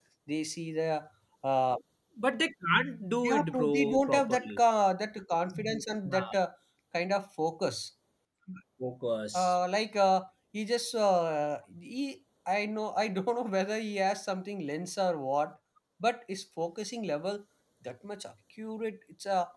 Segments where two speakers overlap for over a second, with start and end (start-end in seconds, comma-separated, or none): 3.2-4.6